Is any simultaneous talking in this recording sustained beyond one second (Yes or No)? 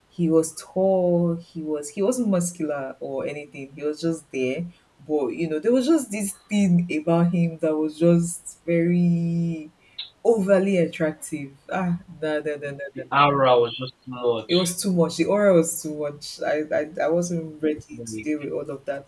No